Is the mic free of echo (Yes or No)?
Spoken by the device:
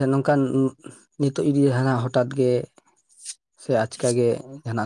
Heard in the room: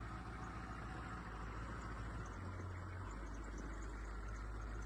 Yes